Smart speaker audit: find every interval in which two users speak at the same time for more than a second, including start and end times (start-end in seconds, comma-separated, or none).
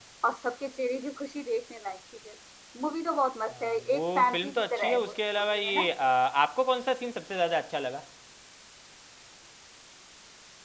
3.5-5.9